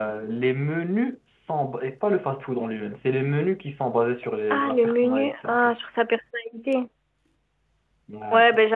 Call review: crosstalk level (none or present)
present